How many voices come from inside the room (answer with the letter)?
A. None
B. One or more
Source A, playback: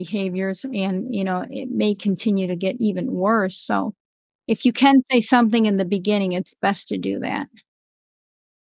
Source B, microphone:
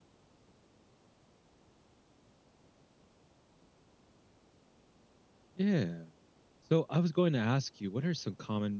B